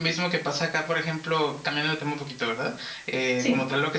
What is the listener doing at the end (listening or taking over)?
listening